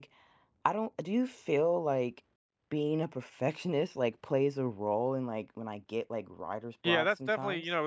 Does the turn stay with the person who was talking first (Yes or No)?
No